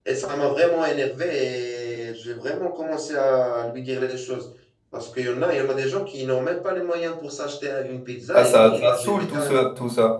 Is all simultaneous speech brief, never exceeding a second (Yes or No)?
No